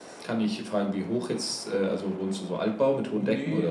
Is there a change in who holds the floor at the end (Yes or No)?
Yes